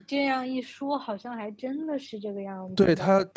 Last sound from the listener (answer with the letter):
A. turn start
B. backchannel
A